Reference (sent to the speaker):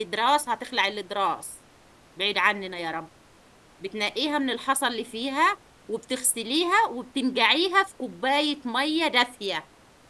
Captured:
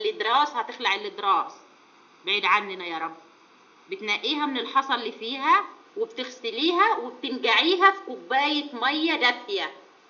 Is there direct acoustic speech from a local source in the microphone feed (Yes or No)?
No